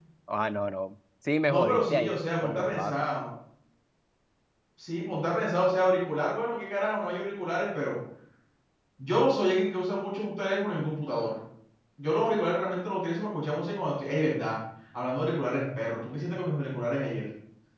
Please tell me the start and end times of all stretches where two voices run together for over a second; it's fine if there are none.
1.5-3.1

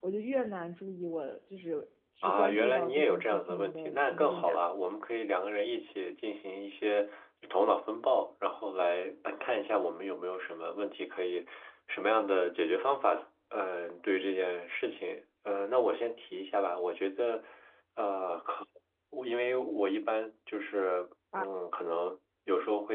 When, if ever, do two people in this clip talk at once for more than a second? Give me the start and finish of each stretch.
2.2-4.6

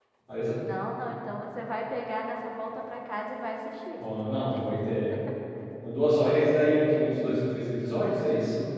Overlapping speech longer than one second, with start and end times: none

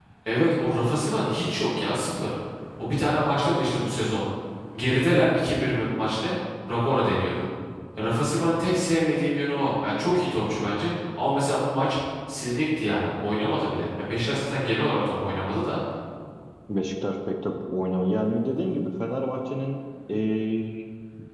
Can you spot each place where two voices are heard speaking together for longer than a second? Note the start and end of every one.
none

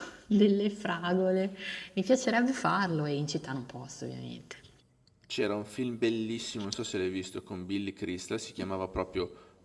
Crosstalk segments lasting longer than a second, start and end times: none

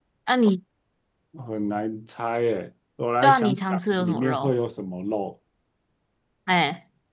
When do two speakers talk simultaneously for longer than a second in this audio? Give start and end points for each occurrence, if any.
3.2-4.5

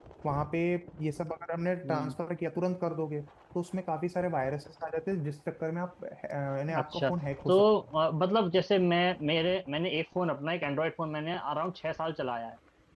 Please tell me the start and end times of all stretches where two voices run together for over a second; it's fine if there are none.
none

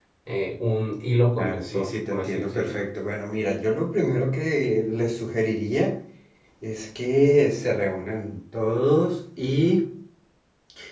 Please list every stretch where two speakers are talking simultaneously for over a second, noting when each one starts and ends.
1.4-2.8

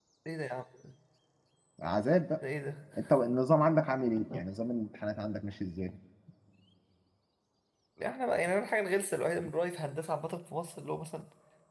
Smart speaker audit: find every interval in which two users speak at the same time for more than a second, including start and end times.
none

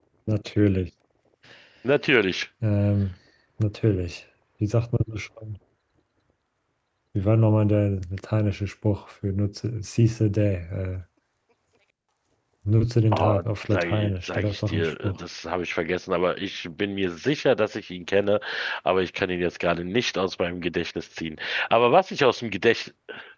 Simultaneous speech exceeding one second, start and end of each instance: 13.2-15.2

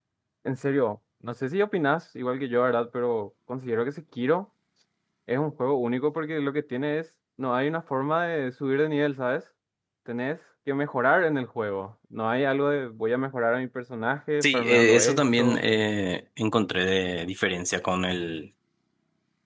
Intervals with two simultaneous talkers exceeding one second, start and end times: 14.4-15.6

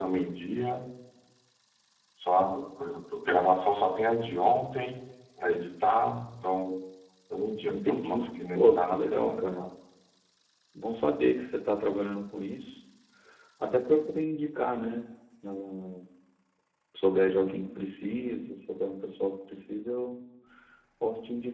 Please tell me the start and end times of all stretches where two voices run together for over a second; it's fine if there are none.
7.7-9.7

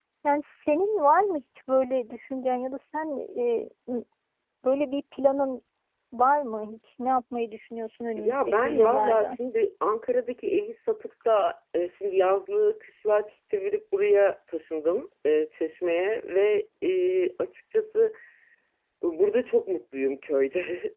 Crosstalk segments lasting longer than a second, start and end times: 8.2-9.4

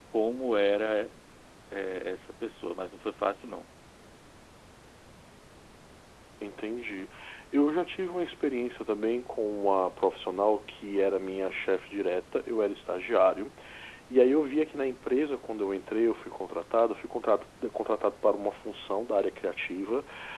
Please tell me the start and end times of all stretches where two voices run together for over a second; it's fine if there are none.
none

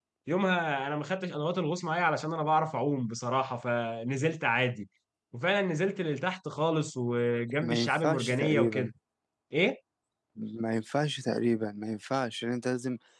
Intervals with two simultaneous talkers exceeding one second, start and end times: 7.6-8.9

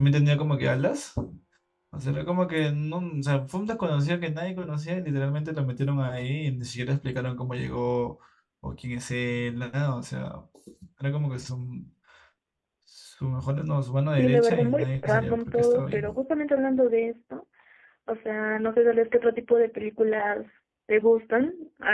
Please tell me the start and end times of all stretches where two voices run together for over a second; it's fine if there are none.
14.1-16.0

